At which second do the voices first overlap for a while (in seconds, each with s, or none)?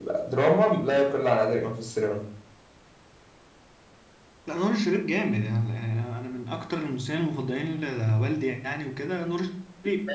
none